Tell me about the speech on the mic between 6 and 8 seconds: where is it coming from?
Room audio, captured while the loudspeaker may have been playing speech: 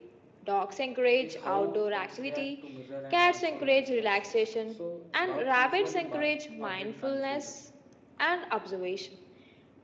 both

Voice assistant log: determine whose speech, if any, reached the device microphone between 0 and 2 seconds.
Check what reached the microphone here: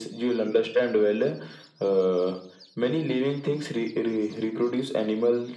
echo only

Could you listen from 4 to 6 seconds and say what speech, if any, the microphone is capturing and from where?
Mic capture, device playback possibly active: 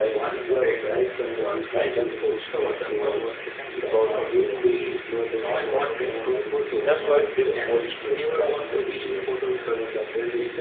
both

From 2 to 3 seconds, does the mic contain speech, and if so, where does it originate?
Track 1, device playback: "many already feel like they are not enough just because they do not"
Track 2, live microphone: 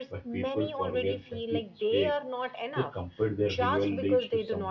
both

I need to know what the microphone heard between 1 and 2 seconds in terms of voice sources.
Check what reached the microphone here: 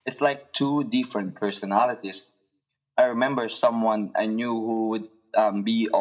echo only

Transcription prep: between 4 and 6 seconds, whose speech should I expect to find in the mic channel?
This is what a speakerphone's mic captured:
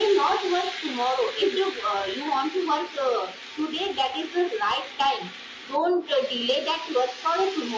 echo only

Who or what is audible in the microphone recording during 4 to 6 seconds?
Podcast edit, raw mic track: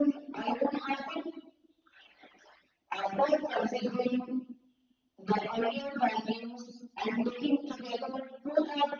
echo only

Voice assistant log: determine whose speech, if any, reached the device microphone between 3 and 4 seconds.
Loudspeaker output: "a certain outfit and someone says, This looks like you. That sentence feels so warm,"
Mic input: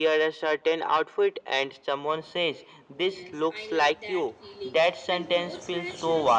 both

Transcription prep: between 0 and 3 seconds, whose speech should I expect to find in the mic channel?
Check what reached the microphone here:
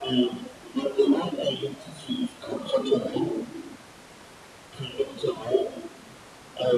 echo only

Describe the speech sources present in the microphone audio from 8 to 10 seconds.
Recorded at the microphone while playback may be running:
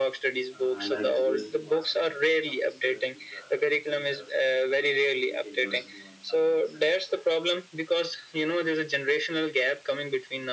echo only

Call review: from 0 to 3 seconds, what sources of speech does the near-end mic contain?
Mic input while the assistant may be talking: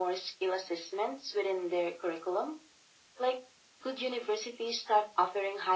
echo only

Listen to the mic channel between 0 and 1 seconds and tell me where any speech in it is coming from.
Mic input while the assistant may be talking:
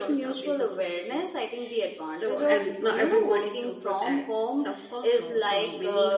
echo only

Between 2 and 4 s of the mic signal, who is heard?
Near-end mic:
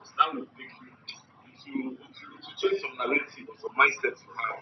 echo only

